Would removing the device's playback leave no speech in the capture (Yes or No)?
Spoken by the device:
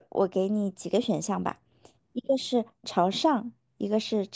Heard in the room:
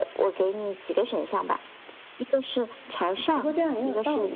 No